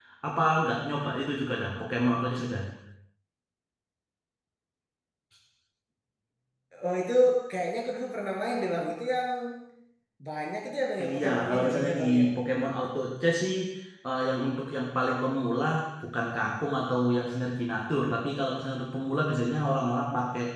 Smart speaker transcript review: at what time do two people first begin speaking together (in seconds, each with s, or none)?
11.0 s